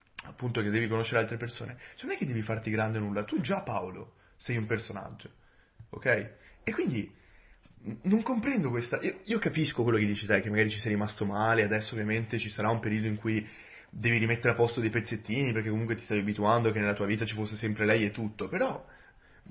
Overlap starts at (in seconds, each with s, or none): none